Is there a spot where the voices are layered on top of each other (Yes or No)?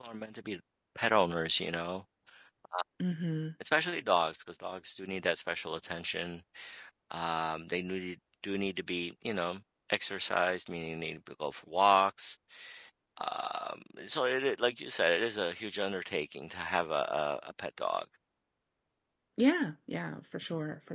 No